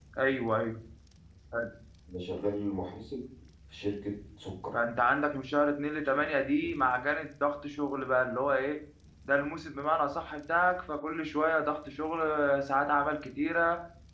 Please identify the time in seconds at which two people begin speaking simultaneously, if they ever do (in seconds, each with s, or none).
none